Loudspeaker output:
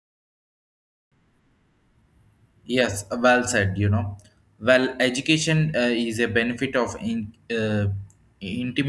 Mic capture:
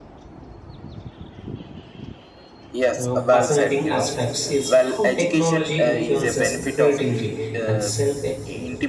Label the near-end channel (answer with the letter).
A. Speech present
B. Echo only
A